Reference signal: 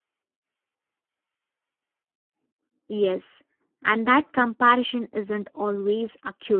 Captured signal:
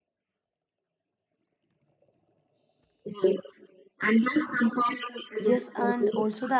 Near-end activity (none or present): present